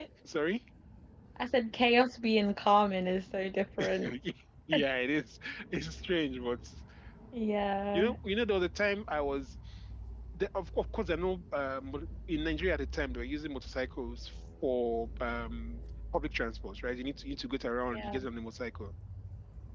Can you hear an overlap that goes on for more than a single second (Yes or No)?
No